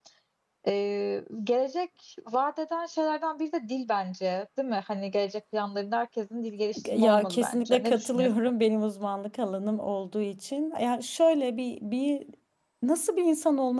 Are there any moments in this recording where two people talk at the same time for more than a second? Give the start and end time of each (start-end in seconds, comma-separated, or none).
7.0-8.3